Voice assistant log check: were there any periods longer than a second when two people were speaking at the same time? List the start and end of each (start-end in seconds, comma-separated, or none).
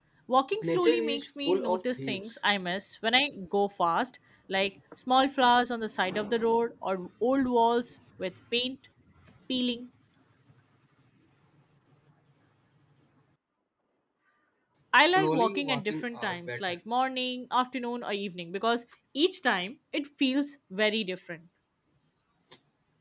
0.6-2.2, 15.1-16.8